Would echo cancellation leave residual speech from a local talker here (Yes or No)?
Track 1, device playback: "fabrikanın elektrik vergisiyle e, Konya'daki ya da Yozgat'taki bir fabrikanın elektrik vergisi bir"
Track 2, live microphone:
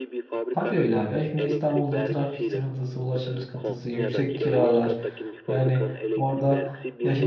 Yes